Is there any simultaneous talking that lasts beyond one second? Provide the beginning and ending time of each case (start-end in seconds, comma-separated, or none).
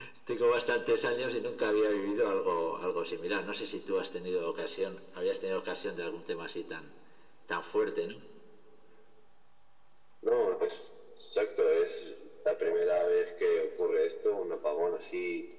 none